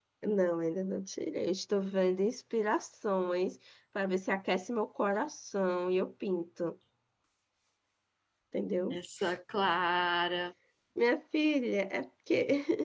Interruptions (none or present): none